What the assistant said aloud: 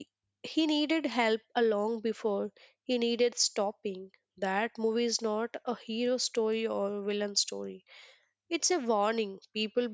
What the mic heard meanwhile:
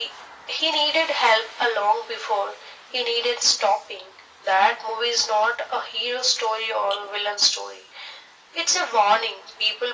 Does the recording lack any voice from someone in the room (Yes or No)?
Yes